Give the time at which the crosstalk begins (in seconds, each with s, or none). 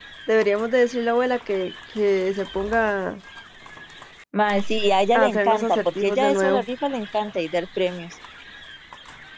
5.1 s